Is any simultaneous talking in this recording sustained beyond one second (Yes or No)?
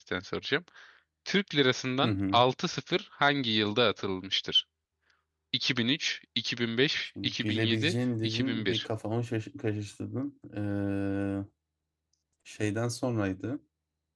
Yes